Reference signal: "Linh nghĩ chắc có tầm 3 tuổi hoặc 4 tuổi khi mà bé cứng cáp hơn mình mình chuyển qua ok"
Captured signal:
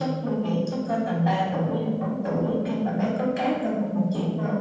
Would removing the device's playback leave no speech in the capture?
Yes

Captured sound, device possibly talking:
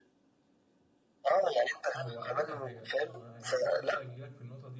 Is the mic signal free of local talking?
No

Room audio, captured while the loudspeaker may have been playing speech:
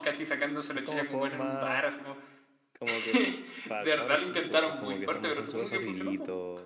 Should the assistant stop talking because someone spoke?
Yes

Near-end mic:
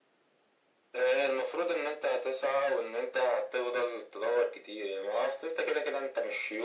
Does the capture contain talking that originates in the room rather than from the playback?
No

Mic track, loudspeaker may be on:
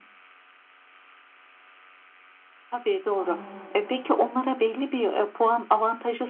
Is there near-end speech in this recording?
Yes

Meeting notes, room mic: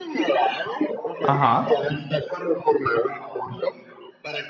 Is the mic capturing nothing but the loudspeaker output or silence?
No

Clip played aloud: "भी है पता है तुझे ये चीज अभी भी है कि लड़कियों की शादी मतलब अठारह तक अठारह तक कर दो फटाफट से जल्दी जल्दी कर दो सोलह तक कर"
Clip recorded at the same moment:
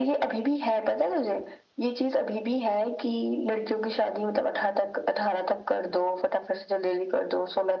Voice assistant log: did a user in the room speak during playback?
No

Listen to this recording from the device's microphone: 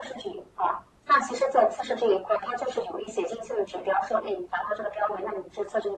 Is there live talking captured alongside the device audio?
No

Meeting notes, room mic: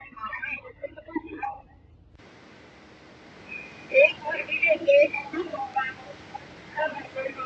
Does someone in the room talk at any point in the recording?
No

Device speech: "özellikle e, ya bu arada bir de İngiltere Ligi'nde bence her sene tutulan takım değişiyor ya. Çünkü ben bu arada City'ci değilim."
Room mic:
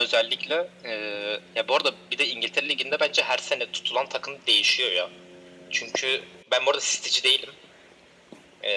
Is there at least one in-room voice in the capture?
No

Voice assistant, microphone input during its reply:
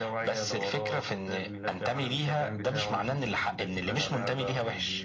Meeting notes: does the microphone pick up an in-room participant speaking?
No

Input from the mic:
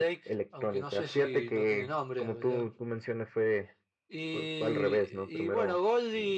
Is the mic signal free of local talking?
Yes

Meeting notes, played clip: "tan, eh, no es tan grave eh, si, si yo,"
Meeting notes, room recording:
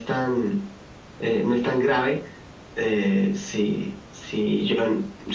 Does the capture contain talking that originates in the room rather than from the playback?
No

